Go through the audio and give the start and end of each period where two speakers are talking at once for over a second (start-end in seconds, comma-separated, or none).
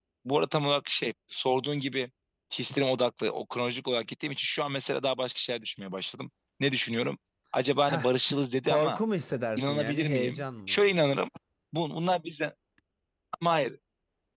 9.6-11.0